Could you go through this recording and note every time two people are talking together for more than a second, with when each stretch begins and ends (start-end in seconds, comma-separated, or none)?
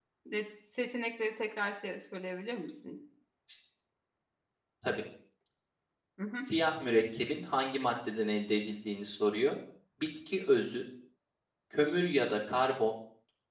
none